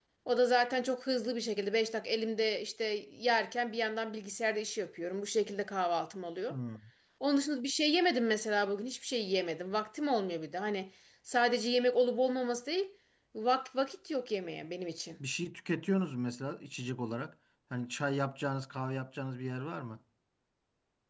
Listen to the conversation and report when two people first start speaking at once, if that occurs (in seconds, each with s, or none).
none